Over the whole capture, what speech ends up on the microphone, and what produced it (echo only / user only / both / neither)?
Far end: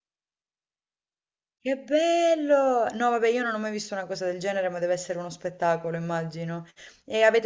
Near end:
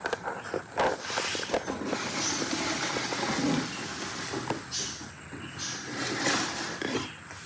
neither